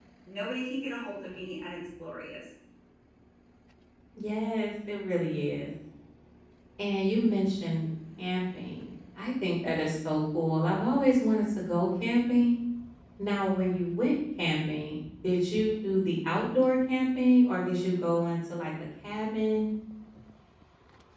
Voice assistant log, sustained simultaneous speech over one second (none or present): none